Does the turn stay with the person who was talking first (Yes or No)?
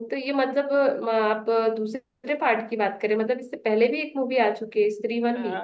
No